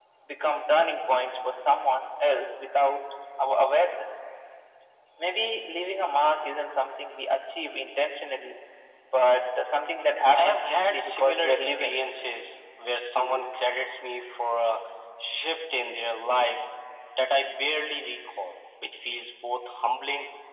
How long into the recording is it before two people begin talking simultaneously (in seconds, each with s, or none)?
10.3 s